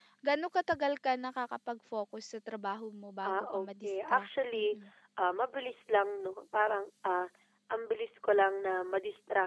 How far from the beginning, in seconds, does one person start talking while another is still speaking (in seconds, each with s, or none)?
3.2 s